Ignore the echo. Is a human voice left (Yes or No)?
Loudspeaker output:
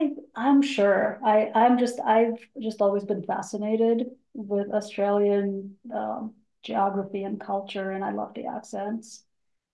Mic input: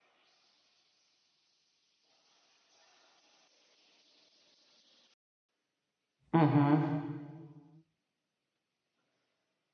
Yes